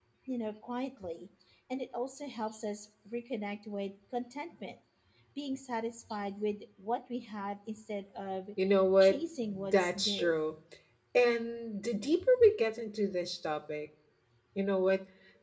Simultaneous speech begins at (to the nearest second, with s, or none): 9 s